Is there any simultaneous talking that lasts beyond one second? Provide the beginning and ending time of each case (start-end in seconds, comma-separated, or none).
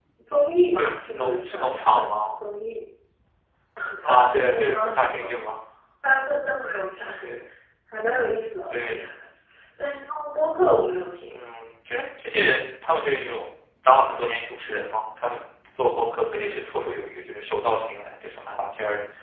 0.8-2.2, 4.0-5.3